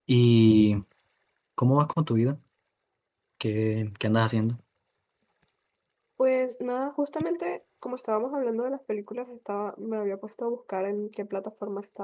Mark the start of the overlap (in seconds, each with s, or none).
none